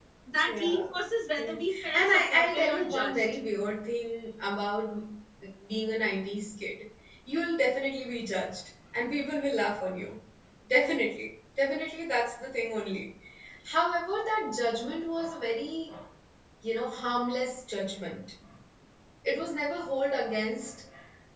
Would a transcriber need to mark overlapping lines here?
Yes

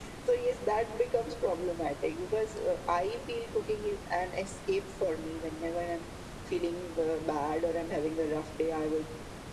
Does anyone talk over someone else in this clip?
No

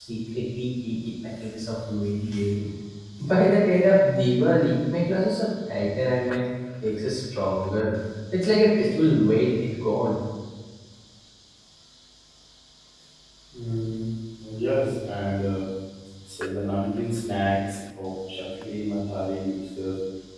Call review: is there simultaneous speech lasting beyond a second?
No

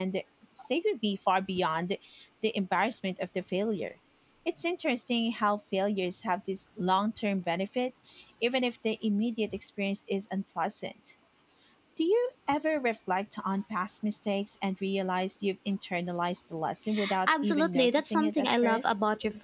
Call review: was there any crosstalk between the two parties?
Yes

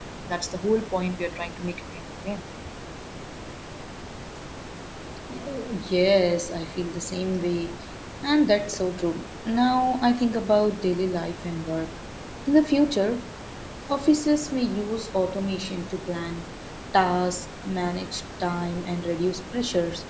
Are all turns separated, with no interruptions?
Yes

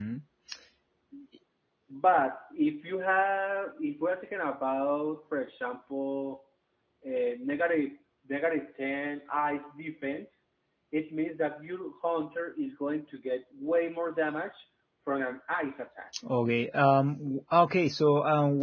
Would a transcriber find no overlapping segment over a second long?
Yes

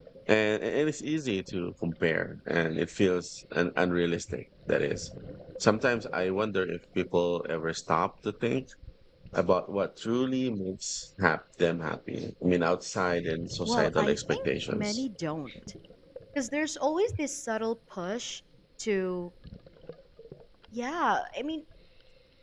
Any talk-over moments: Yes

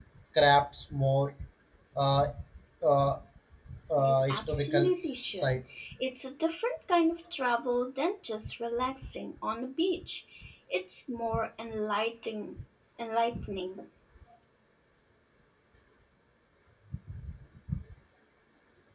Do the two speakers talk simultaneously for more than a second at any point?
Yes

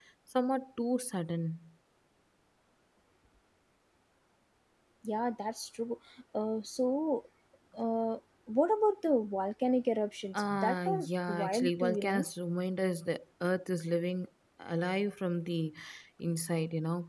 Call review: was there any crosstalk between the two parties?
Yes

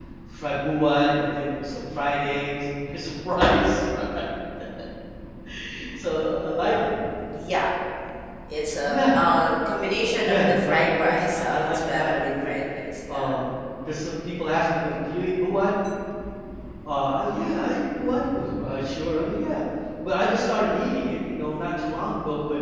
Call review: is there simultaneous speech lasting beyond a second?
Yes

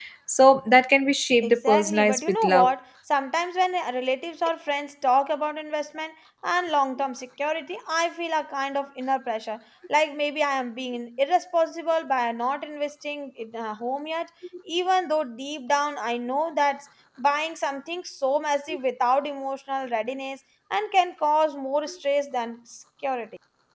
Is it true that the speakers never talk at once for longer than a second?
No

